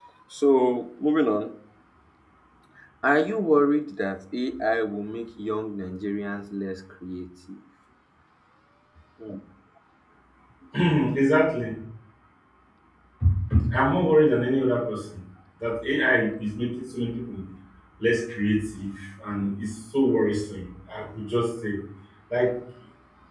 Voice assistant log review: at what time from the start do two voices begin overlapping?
none

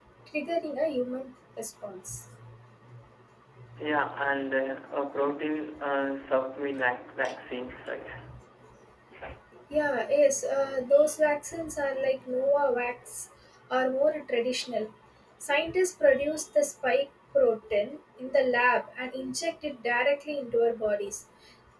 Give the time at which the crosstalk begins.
none

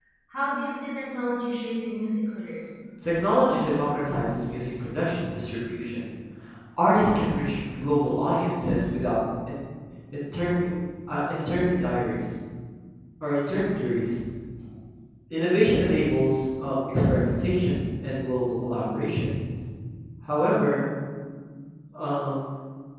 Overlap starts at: none

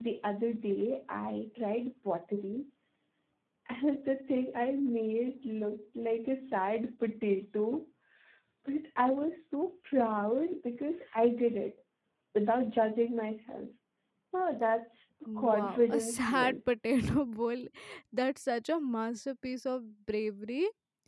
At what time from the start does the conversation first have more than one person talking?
15.3 s

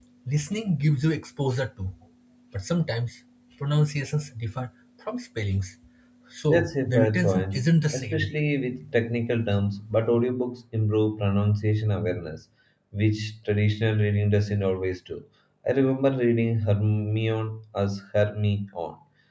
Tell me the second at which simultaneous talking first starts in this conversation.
6.5 s

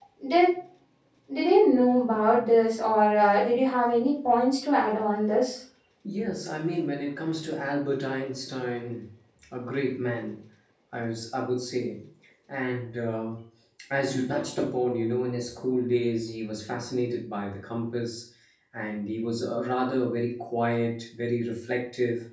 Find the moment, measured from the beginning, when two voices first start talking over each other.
none

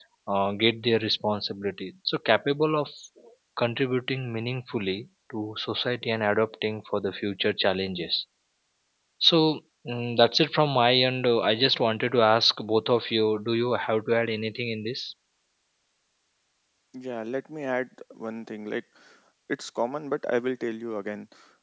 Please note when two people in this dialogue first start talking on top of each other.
none

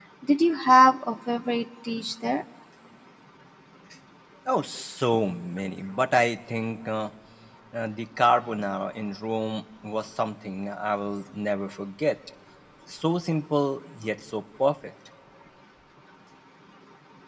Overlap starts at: none

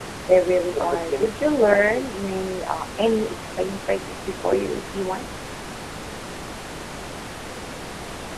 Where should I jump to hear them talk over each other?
0.8 s

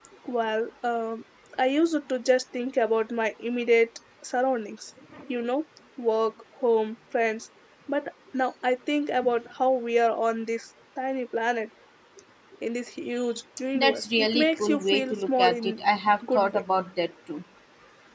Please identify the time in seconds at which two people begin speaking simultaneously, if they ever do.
13.7 s

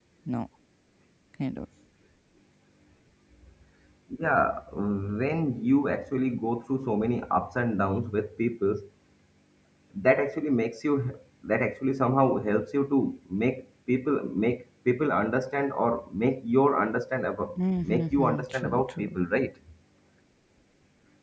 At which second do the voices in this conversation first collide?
17.8 s

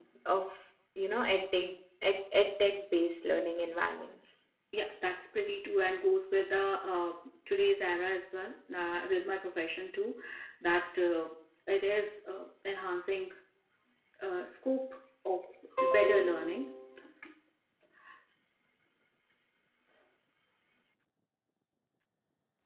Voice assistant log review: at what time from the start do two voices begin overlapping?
none

